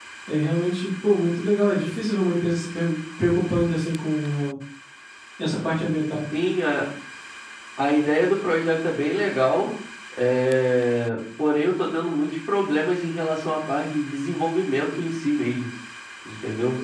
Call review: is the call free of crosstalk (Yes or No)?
Yes